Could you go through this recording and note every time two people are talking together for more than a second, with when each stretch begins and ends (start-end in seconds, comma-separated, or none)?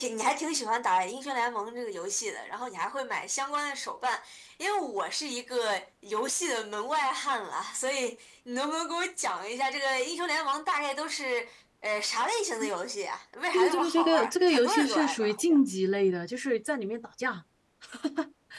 13.5-15.6